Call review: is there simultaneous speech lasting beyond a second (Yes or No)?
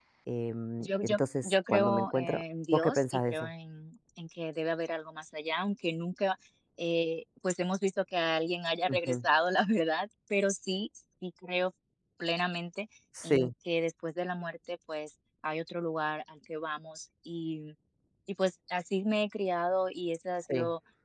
Yes